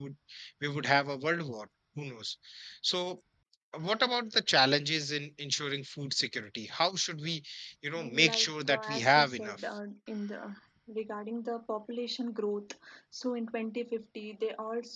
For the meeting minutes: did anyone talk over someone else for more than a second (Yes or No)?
Yes